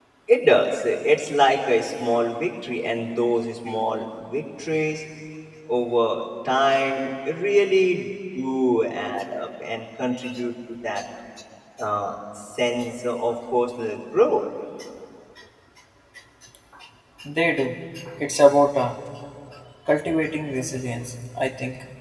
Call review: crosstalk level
none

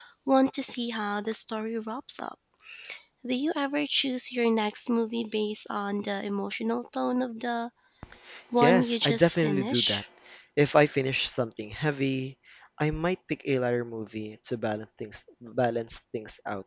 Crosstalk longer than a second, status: present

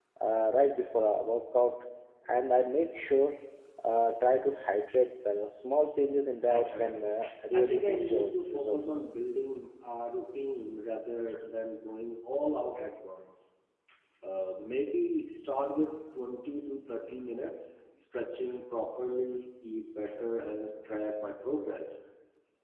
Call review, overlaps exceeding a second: present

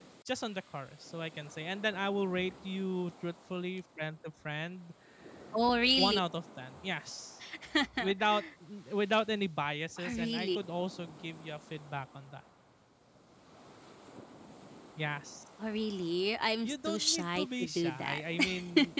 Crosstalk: present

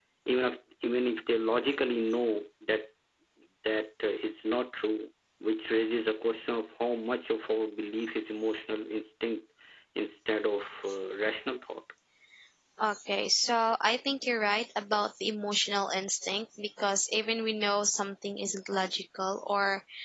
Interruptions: none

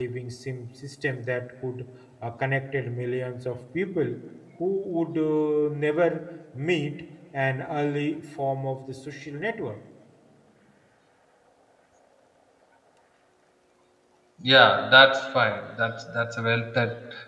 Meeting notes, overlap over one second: none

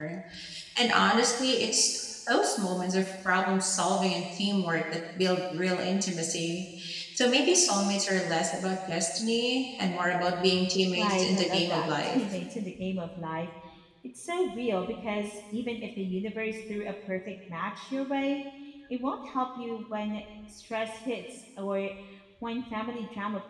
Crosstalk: present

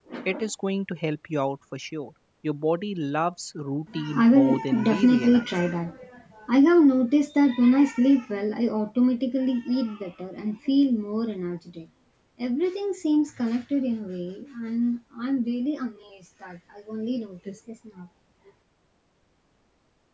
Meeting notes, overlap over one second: present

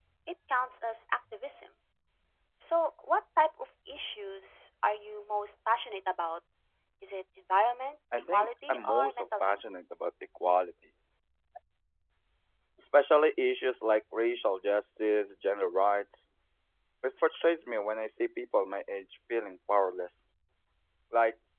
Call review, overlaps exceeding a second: present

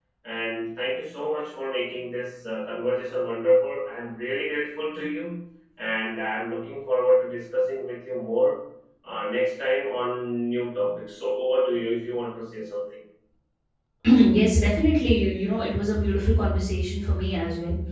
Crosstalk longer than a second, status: none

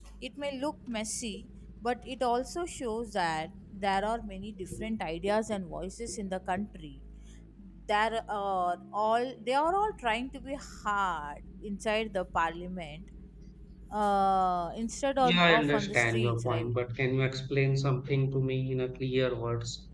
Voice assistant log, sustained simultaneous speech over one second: present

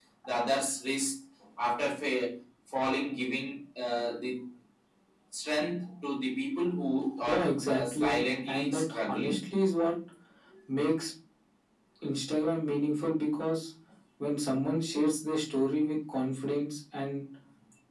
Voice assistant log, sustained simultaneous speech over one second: present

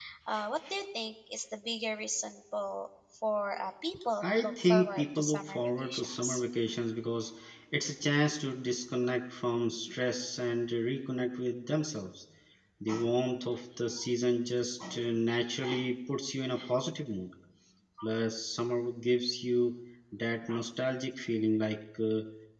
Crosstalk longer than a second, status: present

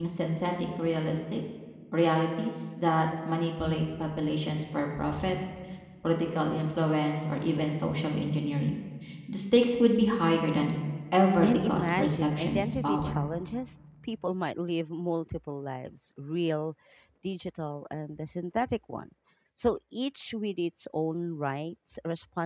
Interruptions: present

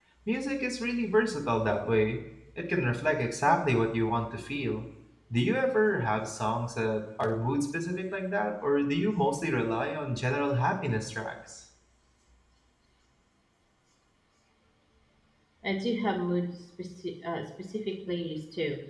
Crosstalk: none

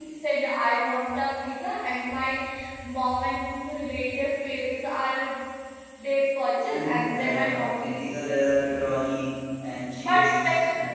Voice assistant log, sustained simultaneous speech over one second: present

